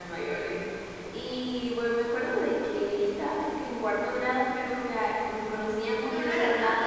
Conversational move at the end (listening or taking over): taking over